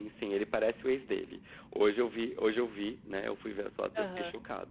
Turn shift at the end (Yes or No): No